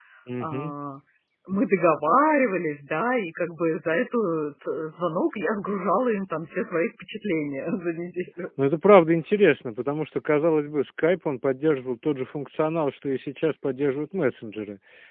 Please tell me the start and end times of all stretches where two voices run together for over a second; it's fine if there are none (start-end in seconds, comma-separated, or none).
none